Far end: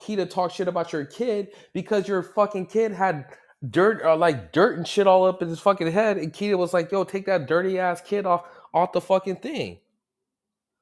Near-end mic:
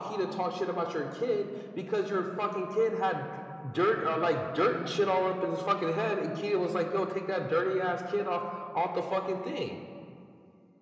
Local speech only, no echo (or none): none